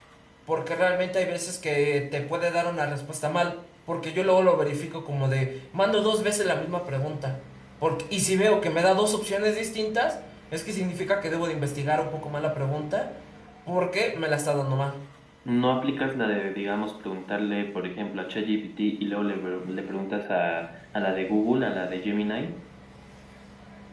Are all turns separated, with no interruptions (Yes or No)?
Yes